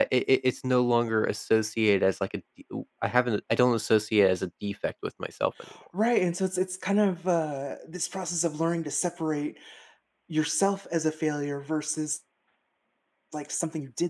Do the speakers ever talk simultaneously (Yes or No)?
No